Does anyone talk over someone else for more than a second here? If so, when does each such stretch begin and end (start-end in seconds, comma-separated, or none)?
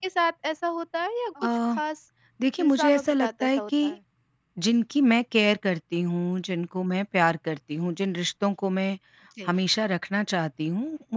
2.6-4.0